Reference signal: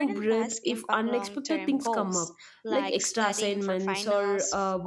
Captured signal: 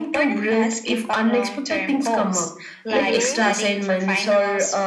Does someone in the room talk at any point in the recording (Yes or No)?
Yes